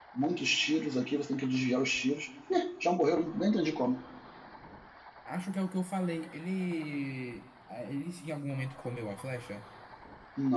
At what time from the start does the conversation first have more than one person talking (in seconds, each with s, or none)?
none